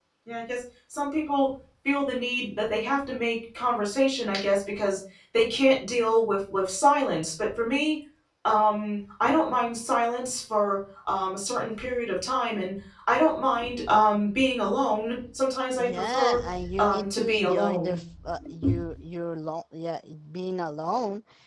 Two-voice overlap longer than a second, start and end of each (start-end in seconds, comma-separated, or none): 15.8-18.0